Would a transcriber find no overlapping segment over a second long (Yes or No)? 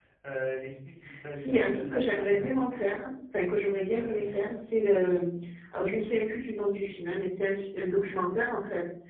No